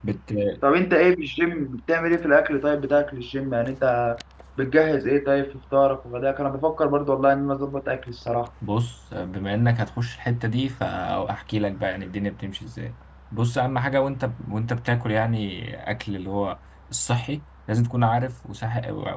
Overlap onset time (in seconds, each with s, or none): none